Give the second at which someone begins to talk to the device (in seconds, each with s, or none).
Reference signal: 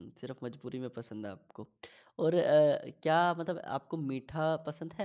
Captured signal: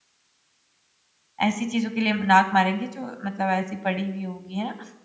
1.5 s